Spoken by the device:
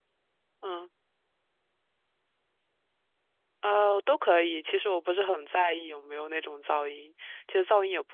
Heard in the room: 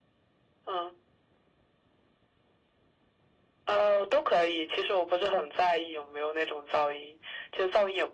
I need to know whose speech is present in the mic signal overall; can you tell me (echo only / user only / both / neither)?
echo only